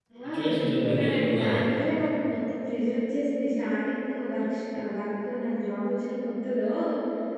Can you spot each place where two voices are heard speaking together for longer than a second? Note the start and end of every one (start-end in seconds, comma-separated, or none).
0.5-1.8